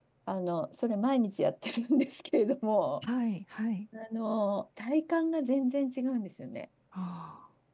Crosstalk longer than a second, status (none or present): none